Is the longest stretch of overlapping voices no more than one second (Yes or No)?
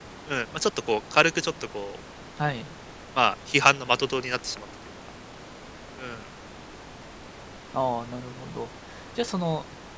Yes